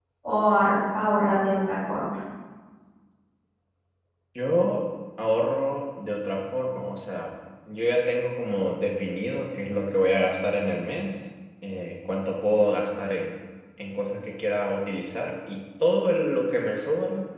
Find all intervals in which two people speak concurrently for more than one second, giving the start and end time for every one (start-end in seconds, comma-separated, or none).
none